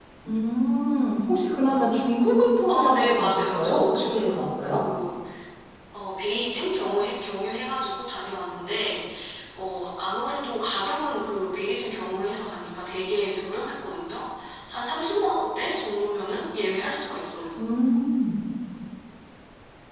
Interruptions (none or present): present